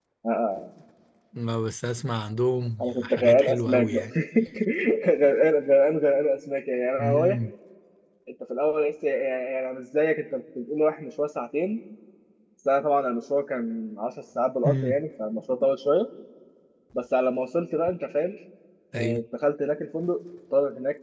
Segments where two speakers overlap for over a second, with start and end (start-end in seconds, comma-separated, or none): 2.8-4.0